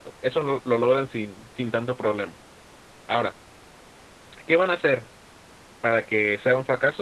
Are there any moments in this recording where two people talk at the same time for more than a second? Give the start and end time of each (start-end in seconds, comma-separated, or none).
none